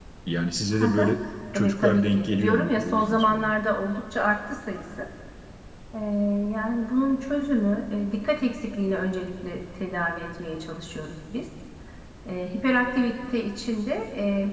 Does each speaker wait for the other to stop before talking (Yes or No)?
No